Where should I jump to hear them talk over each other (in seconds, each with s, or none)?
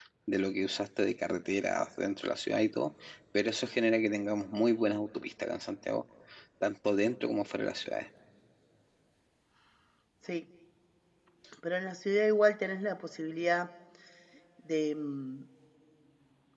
none